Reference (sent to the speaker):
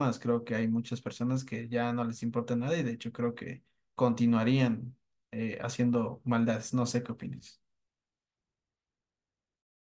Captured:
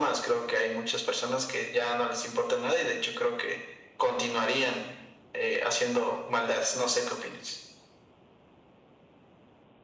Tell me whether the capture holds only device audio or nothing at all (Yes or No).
Yes